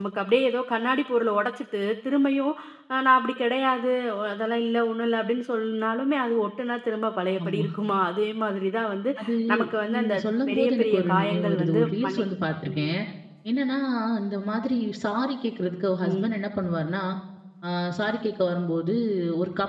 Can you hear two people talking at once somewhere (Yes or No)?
Yes